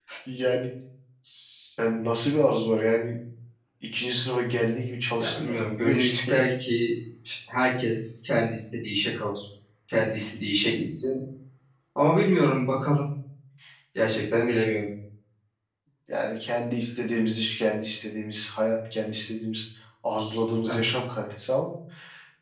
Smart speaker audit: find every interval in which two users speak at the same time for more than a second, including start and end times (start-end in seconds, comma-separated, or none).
5.2-6.4